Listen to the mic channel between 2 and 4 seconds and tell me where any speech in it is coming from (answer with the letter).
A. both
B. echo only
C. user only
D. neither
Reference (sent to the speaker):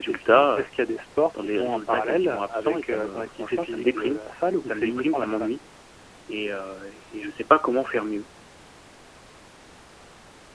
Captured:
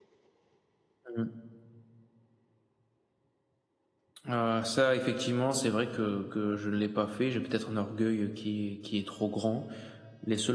D